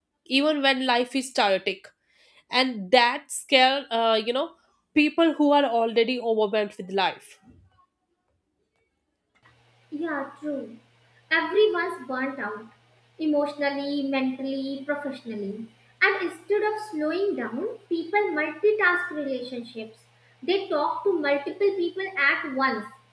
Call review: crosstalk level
none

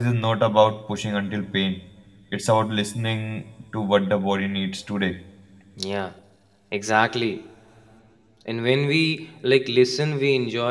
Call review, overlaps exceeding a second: none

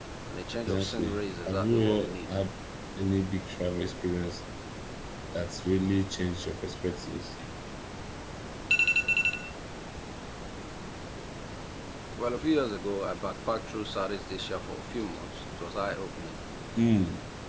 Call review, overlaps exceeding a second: present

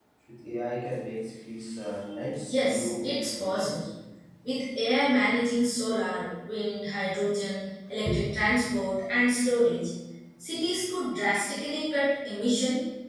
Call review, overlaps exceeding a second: present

